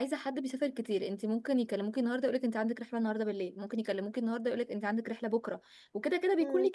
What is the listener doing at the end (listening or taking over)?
listening